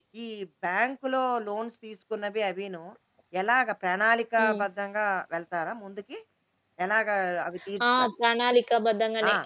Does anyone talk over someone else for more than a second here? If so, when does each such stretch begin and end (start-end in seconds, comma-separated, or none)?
none